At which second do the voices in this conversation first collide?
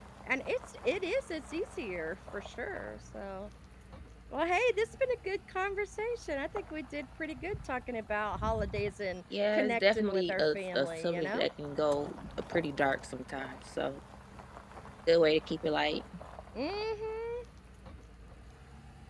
9.3 s

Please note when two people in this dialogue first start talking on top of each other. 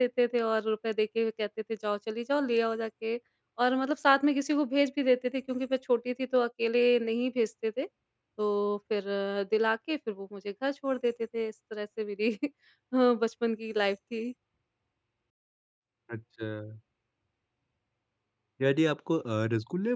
none

